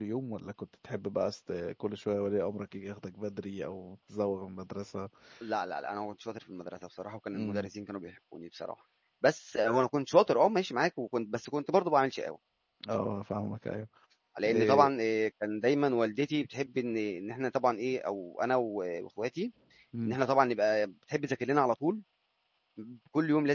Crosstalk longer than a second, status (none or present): none